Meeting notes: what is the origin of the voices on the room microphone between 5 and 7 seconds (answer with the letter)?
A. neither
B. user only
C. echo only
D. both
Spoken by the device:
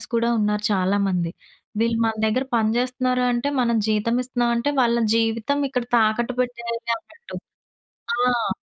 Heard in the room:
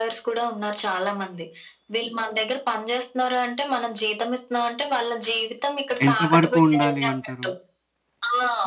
D